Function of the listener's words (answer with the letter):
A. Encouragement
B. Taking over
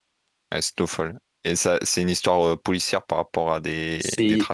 B